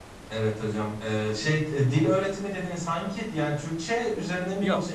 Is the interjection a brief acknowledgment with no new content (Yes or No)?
No